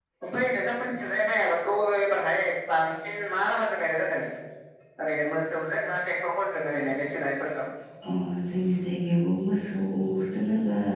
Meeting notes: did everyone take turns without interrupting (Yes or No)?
Yes